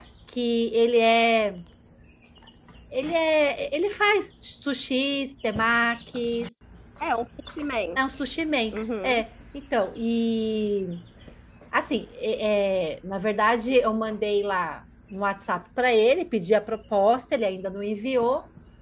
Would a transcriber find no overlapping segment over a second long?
Yes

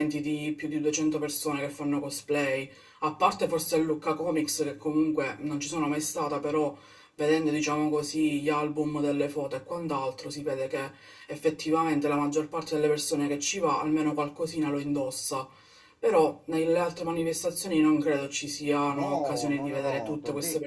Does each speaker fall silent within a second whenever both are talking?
No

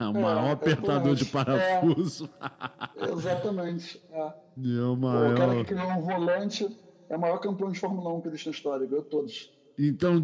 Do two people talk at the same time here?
Yes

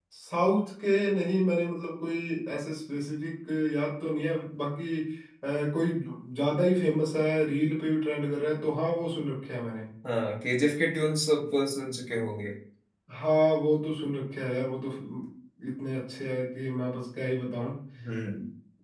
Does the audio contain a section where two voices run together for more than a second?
No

